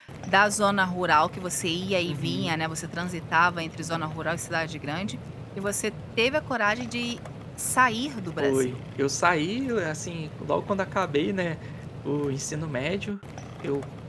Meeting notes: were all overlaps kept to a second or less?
Yes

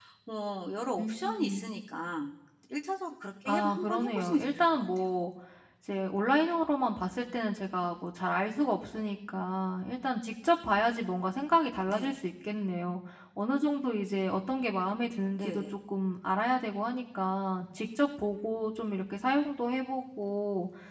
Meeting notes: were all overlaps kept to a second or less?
No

